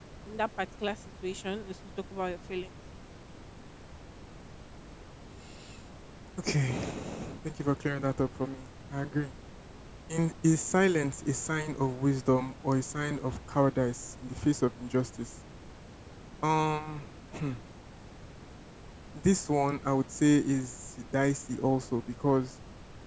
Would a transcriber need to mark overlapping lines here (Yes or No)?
No